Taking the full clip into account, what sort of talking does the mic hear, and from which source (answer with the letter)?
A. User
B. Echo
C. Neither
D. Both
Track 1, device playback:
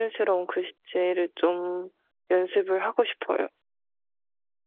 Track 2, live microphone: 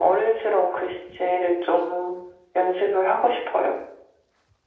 B